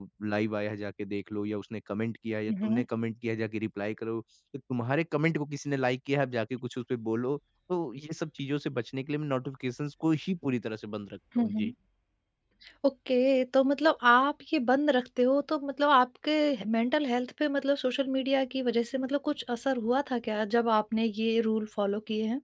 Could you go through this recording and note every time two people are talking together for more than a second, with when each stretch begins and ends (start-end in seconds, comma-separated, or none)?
none